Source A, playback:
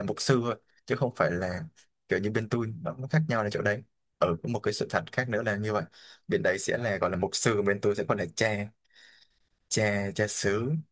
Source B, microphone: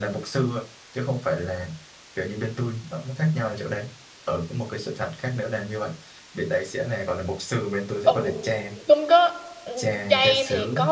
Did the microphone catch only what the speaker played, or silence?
No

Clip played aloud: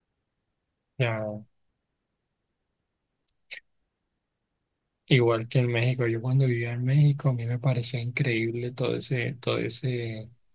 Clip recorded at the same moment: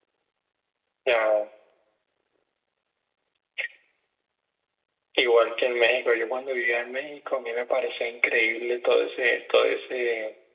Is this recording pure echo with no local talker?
Yes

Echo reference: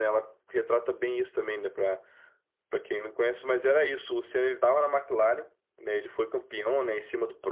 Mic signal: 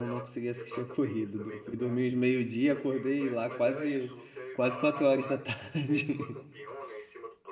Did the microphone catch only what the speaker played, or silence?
No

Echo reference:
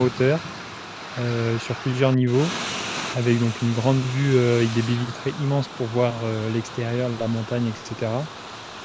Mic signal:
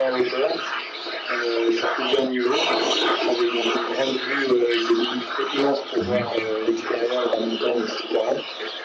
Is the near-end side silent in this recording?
No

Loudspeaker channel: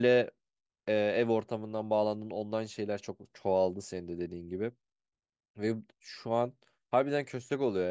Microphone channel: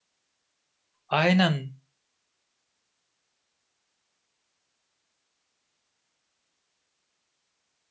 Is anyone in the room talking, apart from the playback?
Yes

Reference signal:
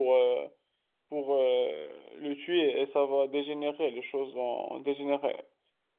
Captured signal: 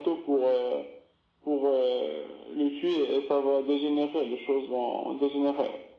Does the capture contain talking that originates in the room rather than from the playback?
No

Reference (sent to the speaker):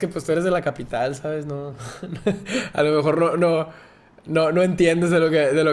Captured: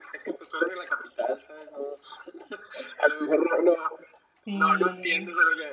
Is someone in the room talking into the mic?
Yes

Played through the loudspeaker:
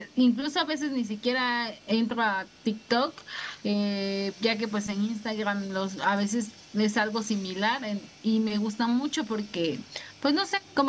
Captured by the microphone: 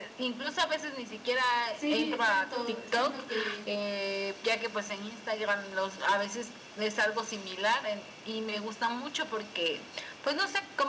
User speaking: Yes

